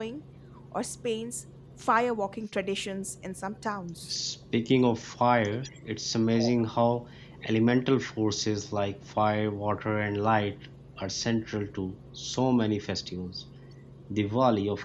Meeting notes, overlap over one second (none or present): none